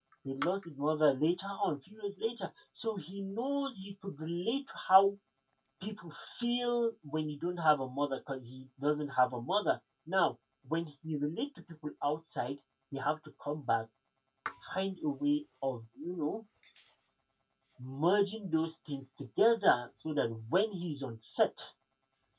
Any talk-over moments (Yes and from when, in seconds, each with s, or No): No